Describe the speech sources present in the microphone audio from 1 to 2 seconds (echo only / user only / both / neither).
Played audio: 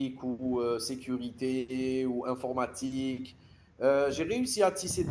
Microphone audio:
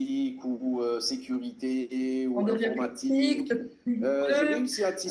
echo only